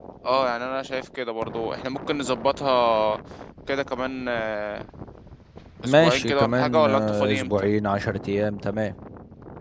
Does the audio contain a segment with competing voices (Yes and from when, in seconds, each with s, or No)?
Yes, from 5.8 s